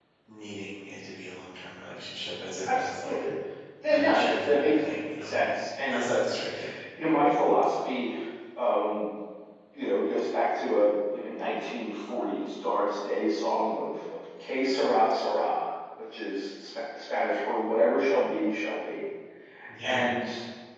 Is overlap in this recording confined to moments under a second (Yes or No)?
No